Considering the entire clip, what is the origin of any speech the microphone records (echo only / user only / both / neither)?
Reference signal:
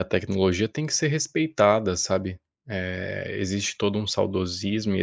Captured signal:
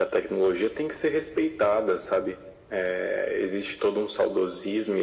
echo only